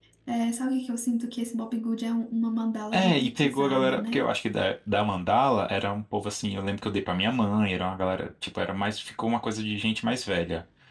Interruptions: present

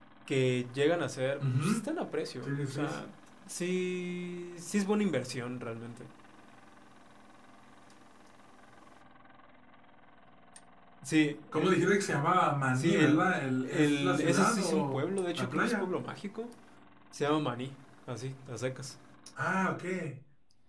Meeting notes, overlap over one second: present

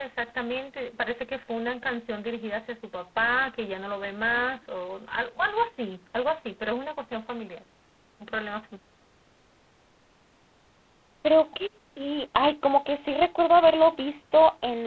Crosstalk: none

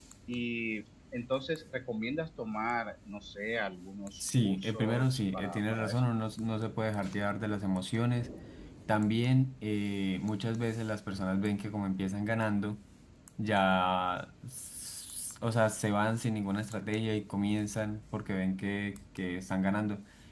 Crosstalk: present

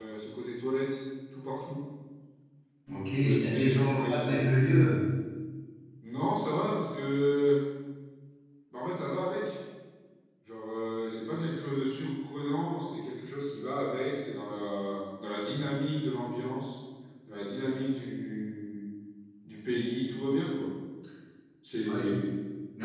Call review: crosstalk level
present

